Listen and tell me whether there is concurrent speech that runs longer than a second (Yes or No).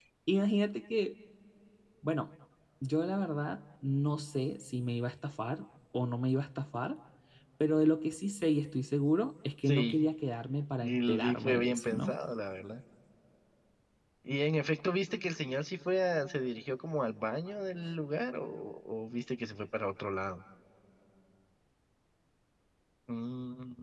Yes